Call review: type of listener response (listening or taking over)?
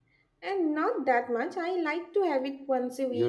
taking over